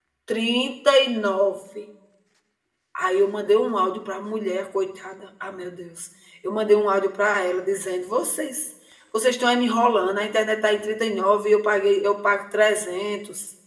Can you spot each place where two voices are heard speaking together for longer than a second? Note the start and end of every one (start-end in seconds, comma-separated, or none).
none